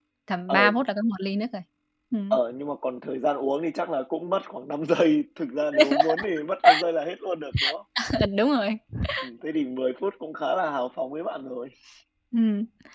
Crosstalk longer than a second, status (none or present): none